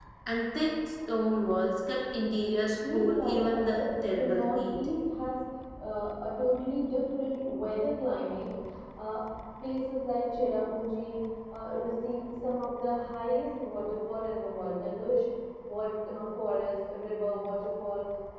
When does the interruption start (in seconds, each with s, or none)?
2.8 s